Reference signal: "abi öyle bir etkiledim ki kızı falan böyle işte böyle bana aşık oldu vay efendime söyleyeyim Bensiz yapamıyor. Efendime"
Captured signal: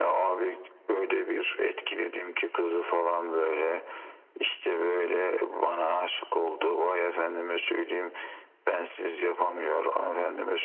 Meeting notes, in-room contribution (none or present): none